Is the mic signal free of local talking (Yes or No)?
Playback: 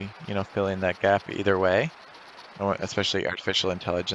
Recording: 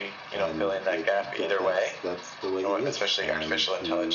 No